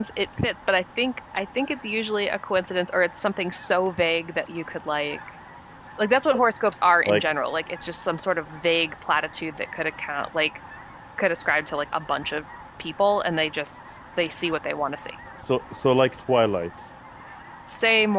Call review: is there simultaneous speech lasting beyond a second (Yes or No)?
No